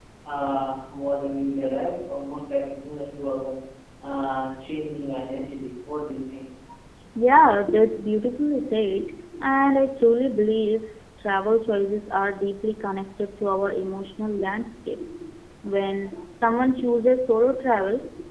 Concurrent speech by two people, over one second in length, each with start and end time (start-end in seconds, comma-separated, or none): none